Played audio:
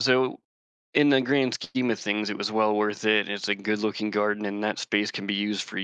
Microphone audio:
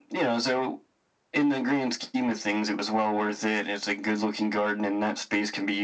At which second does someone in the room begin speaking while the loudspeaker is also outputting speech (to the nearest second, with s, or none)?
none